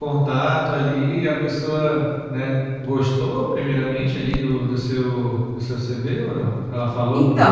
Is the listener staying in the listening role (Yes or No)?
No